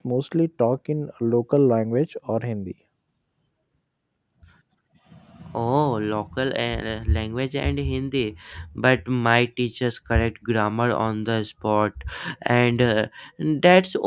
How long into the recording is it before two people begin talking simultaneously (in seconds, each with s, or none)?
none